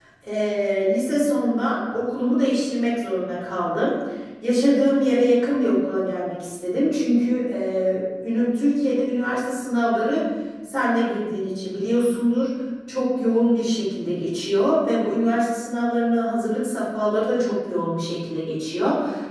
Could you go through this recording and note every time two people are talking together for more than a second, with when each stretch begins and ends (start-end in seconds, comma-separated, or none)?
none